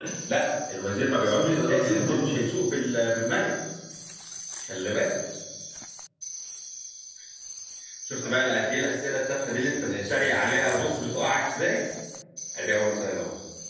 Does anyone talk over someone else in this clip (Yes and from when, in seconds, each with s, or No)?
Yes, from 0.9 s